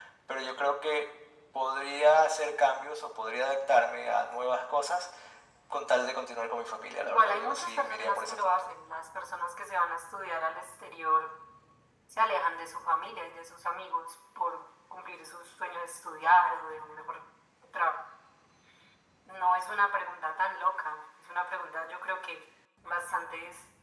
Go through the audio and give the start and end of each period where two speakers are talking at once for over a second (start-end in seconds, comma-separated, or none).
7.0-8.7